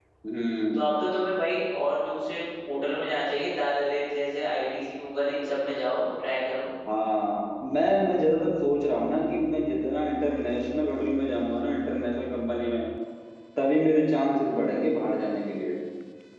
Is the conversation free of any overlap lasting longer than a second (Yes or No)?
Yes